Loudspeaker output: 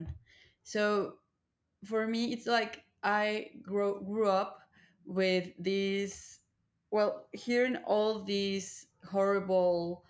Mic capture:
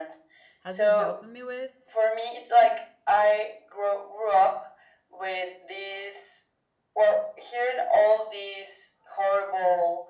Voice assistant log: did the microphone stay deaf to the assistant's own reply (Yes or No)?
No